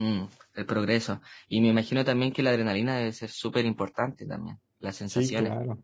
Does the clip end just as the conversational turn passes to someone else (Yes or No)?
Yes